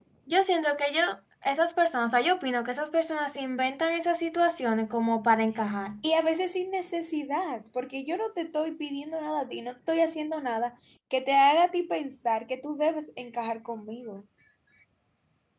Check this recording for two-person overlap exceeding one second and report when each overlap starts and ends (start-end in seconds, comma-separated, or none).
none